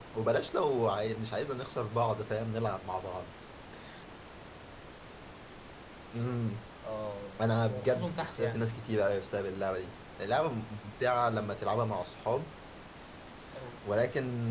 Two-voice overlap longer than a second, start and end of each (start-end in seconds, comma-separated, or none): 7.4-8.7